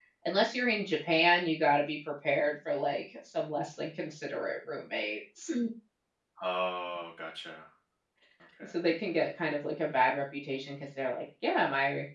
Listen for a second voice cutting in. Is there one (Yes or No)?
No